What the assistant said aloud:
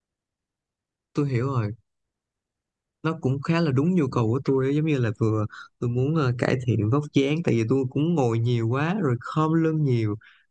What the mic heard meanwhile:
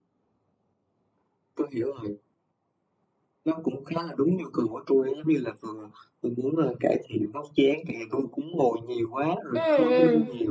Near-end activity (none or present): present